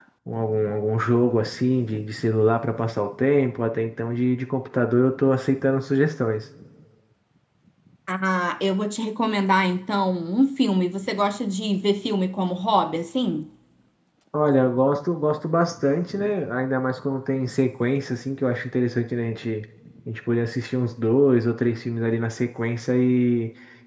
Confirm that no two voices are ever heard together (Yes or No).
Yes